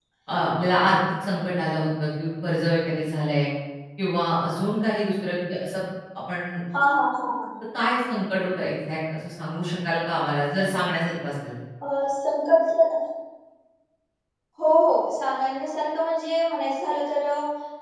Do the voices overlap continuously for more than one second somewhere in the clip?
No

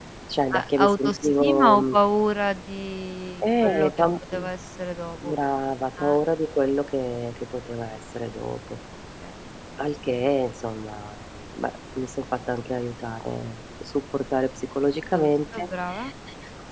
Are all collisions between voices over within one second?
No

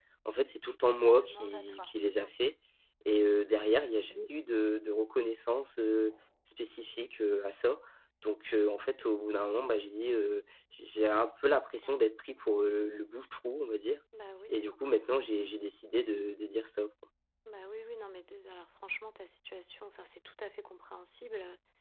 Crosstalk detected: Yes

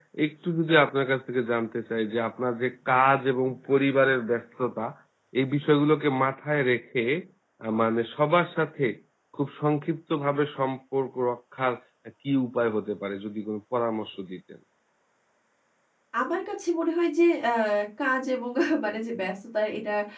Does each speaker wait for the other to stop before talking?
Yes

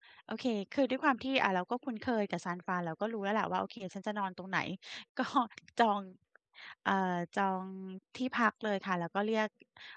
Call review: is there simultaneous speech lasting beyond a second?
No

